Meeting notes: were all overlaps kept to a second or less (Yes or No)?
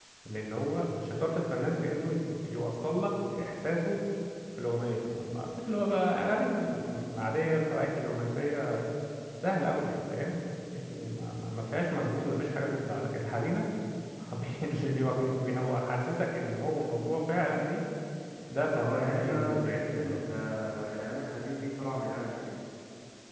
No